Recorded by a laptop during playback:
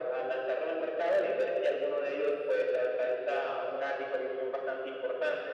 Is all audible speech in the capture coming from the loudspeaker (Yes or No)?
Yes